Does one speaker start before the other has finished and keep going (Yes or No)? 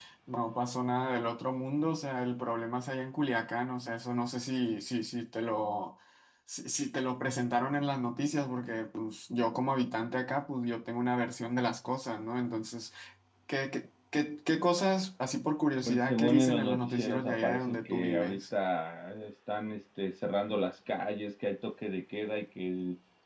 Yes